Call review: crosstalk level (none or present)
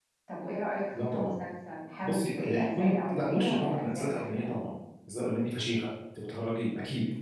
present